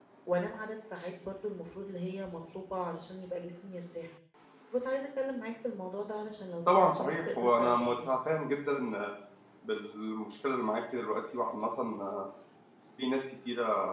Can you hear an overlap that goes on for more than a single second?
Yes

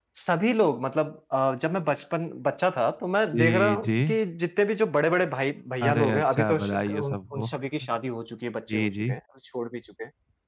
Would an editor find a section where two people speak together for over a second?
Yes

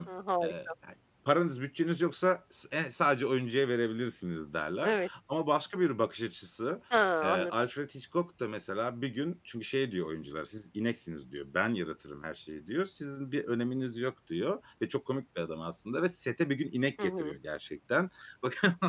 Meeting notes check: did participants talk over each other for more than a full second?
No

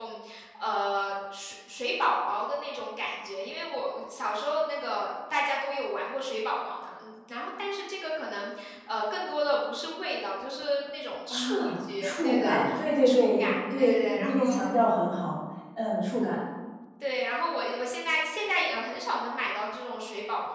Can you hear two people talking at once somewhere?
Yes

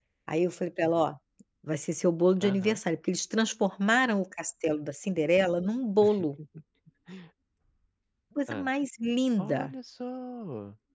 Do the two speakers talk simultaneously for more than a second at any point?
No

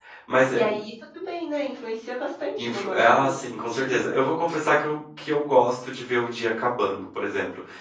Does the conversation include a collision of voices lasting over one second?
Yes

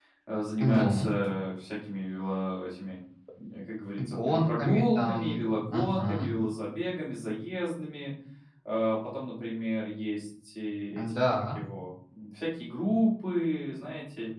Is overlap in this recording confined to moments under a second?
No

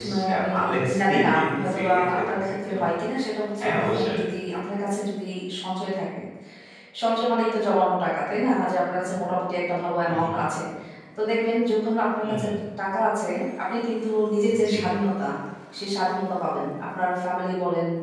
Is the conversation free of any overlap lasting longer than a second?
No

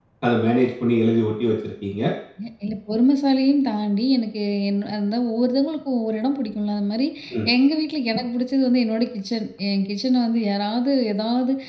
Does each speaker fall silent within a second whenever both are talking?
Yes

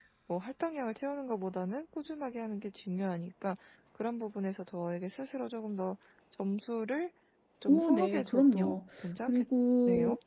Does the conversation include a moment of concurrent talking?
Yes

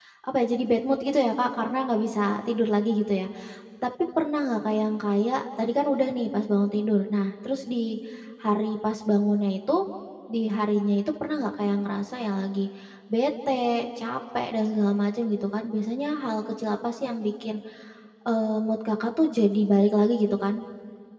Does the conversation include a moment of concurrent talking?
No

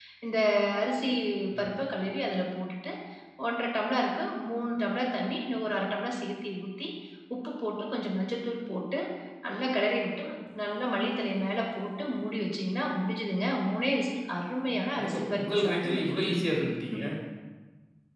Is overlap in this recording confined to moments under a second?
No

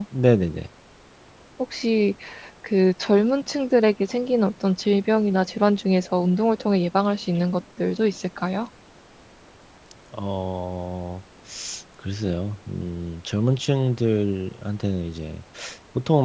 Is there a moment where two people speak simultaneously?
No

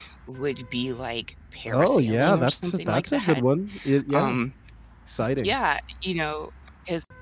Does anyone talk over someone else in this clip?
Yes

